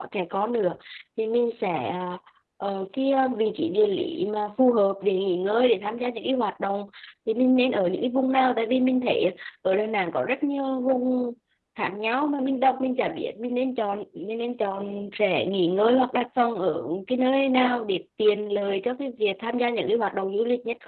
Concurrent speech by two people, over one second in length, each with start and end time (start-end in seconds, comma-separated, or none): none